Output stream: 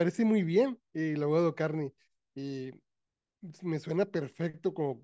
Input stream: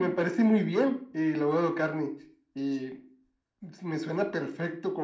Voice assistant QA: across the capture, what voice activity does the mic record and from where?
echo only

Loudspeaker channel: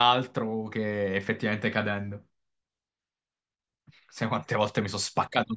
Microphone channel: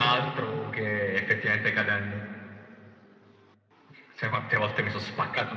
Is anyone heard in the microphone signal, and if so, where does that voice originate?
echo only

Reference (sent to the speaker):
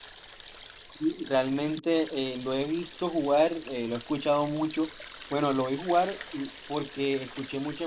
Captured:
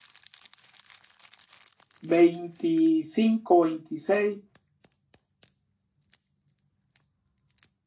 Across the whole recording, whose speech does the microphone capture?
user only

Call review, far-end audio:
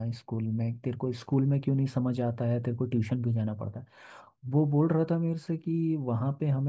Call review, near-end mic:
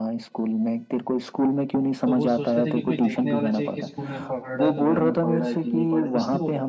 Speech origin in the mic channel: both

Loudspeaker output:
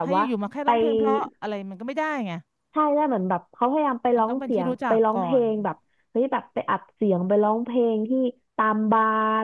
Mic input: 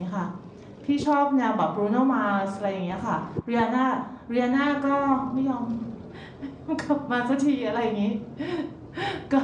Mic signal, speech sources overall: user only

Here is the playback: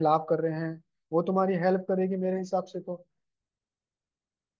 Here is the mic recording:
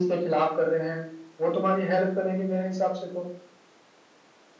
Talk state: echo only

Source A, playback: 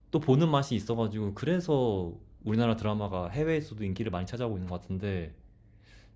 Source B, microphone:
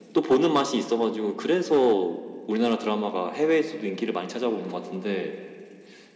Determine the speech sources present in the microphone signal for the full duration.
echo only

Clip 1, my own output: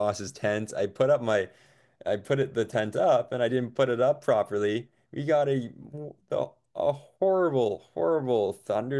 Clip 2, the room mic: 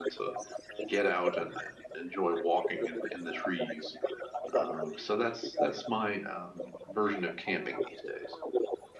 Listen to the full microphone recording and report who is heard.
both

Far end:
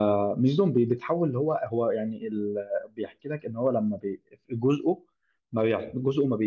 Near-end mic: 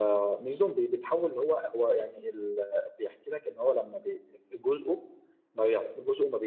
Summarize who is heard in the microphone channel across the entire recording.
echo only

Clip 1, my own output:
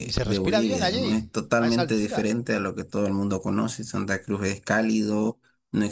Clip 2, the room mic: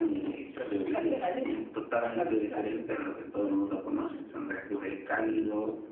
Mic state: echo only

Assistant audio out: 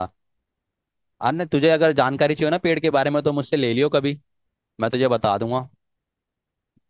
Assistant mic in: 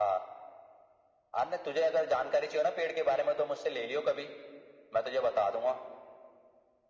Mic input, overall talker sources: echo only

